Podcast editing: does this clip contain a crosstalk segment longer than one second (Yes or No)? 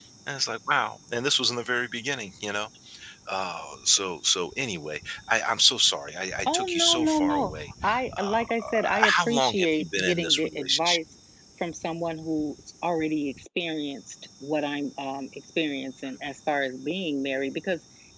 Yes